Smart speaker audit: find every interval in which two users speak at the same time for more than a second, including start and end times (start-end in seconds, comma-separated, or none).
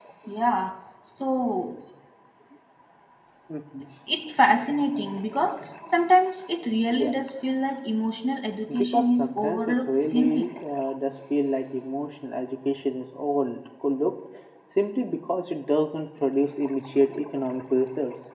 8.8-10.4